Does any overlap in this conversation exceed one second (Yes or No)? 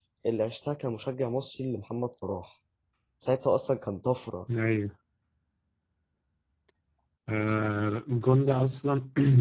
No